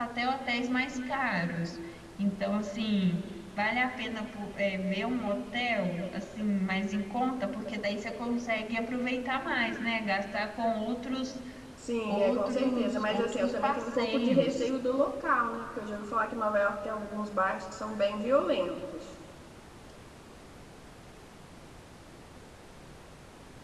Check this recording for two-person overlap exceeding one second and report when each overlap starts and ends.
12.1-14.7

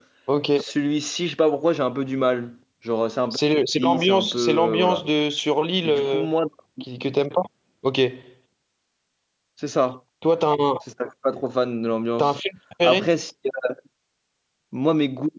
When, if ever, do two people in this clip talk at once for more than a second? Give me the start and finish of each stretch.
3.8-5.0

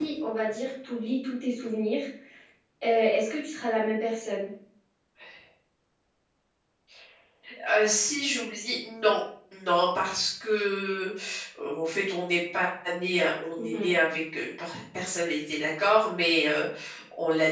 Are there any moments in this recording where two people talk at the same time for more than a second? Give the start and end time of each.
none

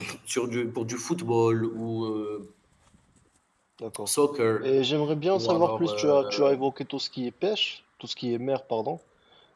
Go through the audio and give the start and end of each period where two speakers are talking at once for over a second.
5.3-6.5

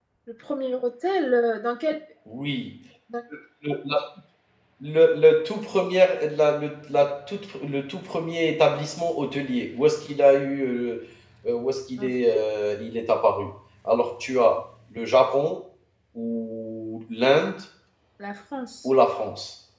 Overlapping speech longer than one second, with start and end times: none

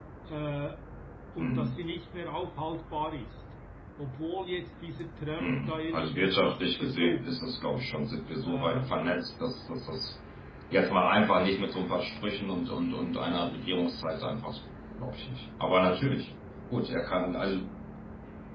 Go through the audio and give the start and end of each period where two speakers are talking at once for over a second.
5.4-7.3

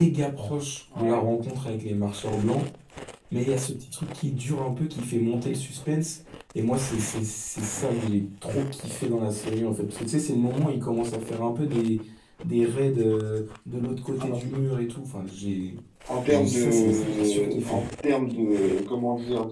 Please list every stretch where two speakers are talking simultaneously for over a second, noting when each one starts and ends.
16.3-17.8

